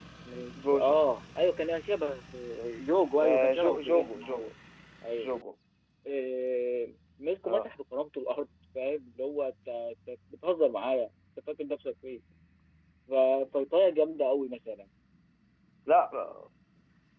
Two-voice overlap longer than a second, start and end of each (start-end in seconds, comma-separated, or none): 3.2-4.5